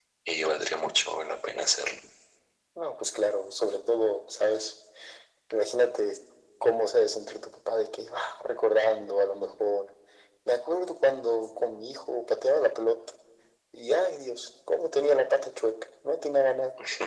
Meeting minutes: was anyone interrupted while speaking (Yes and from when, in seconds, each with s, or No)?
No